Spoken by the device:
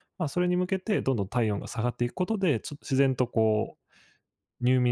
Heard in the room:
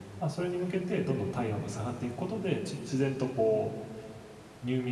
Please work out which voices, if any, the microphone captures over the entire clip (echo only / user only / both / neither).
echo only